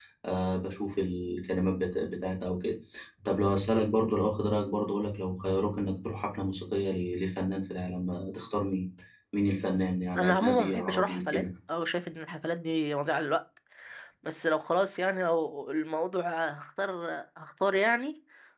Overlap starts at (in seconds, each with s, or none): 10.2 s